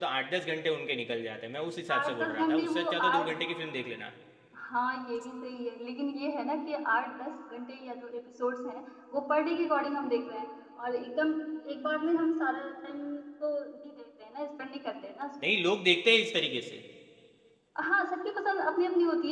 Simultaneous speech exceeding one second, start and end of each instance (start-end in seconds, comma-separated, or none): 2.0-3.3